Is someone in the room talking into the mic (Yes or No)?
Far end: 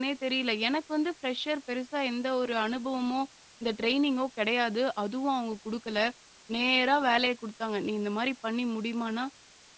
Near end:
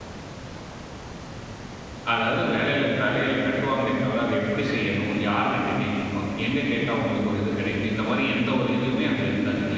Yes